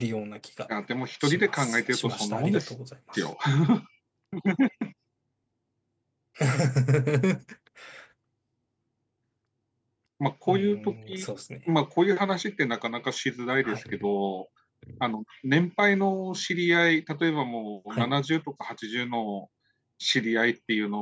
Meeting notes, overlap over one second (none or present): present